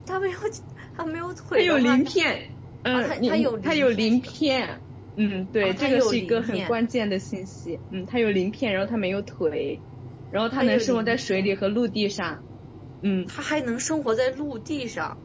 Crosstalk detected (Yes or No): Yes